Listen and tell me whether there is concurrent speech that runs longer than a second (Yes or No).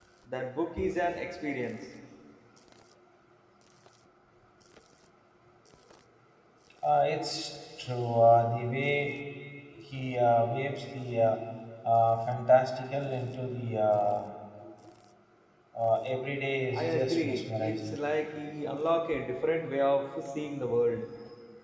Yes